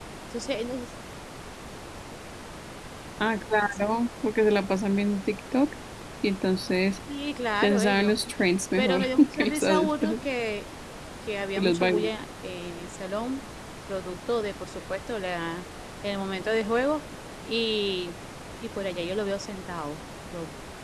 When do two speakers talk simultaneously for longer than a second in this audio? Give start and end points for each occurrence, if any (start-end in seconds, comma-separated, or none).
8.8-10.2